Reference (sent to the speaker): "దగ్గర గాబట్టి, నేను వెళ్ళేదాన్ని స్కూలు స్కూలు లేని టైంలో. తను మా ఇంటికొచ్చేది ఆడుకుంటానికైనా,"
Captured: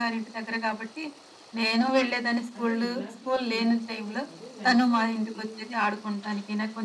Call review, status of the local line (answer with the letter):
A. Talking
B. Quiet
A